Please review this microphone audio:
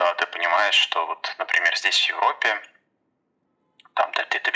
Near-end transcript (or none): none